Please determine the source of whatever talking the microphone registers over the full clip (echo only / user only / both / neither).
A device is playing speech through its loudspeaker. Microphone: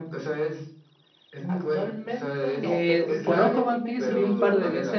both